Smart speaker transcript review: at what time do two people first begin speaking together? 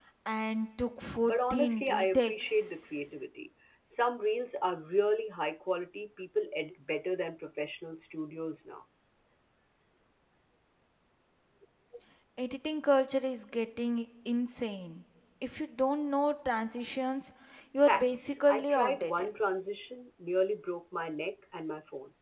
1.2 s

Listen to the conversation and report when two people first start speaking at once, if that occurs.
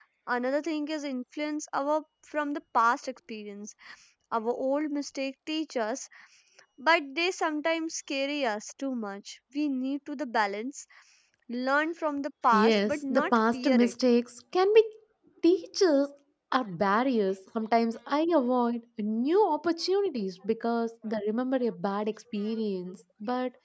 12.5 s

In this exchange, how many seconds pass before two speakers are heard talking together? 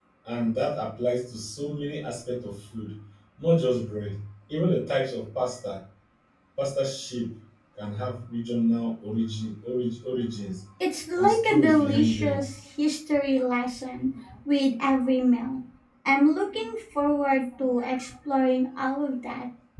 11.2 s

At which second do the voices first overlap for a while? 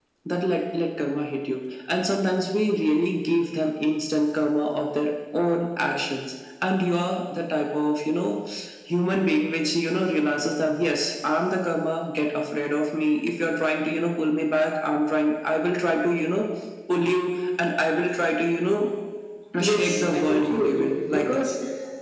19.6 s

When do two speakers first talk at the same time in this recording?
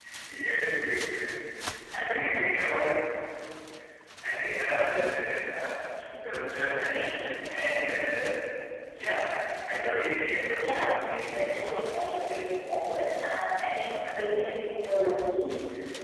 10.6 s

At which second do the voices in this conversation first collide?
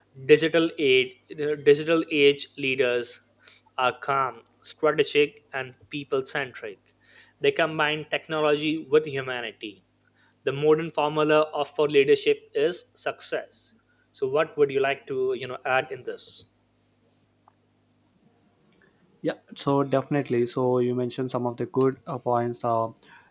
none

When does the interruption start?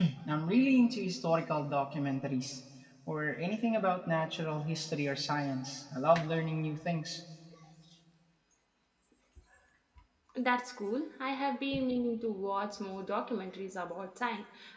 none

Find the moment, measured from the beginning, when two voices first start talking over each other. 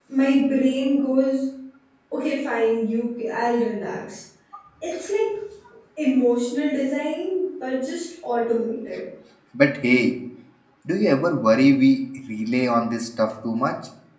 none

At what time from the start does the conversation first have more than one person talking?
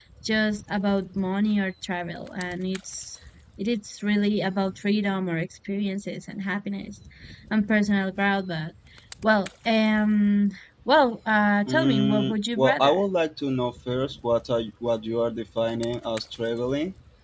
11.7 s

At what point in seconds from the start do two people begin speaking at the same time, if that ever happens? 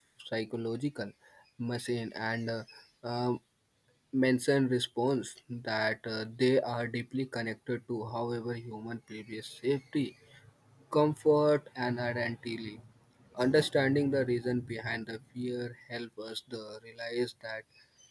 none

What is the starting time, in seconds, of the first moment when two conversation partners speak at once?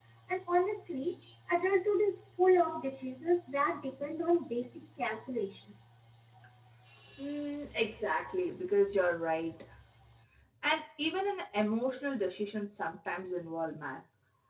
none

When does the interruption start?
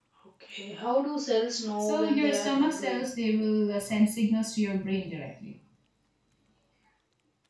1.8 s

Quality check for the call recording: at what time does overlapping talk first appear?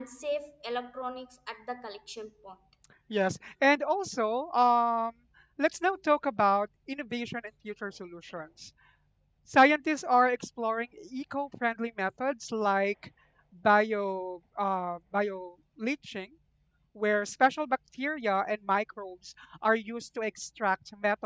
none

